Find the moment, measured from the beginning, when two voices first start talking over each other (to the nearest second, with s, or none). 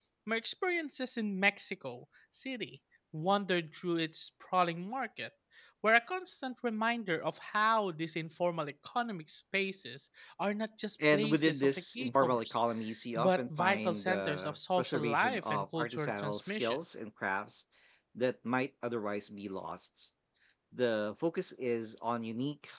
11 s